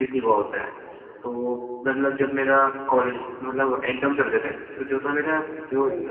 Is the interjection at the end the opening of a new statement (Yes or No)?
No